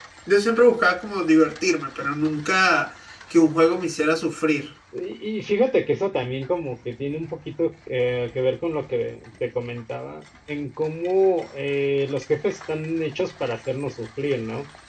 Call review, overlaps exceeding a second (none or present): none